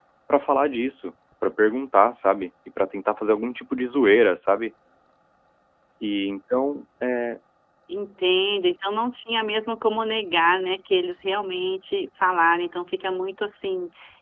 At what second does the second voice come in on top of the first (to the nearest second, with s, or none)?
none